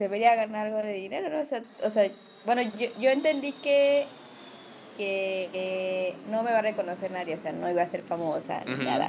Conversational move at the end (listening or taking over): taking over